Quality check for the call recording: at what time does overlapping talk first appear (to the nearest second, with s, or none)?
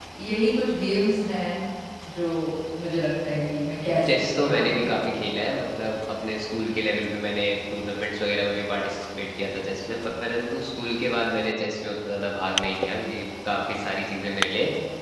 4 s